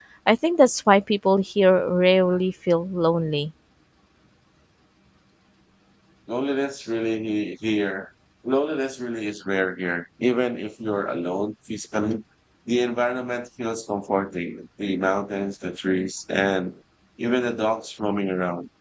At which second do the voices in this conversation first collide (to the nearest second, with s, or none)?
none